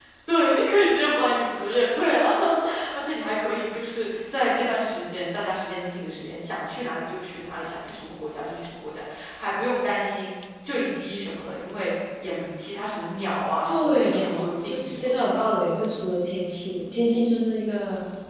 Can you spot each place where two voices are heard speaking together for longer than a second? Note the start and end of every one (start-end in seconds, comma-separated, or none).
13.7-15.1